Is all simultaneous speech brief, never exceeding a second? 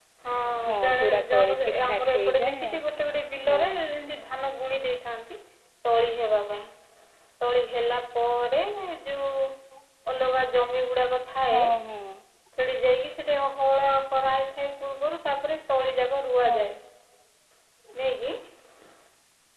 No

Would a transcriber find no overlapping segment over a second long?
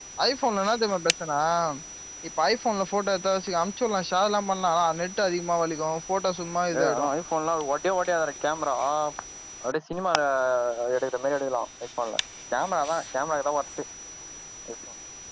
Yes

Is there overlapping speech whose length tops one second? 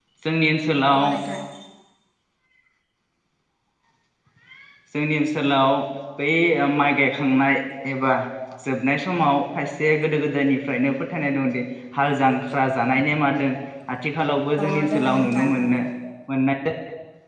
Yes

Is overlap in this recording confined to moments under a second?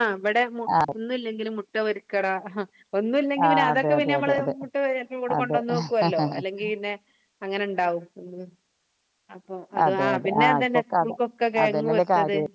No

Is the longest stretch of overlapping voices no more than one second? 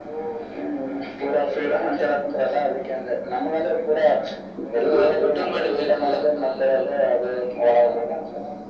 No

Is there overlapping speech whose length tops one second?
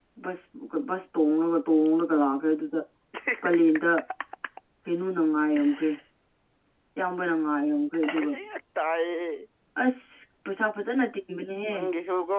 No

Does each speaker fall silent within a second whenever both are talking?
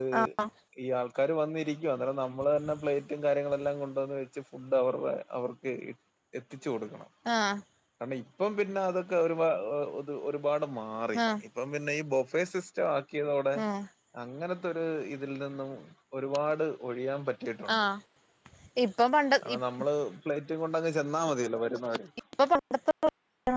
Yes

